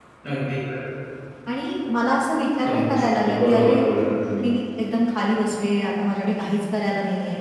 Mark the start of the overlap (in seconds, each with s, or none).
2.6 s